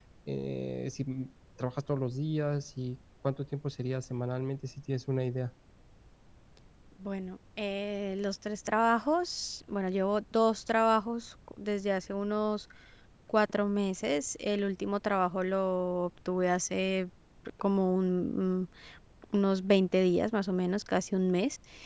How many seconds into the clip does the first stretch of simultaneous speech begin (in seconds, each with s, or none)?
none